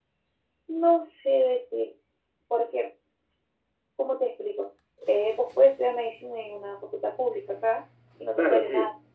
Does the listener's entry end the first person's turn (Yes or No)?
Yes